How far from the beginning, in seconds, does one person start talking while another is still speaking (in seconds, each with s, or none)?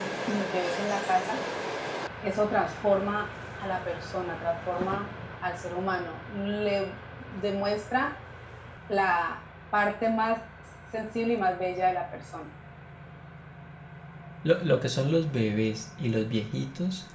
none